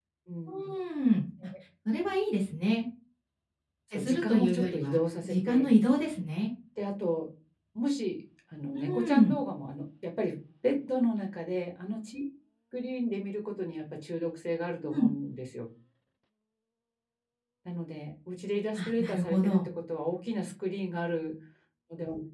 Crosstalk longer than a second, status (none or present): present